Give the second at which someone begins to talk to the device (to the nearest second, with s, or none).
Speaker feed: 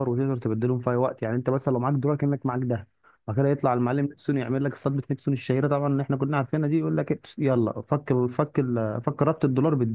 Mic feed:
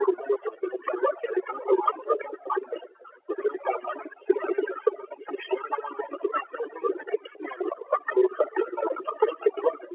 none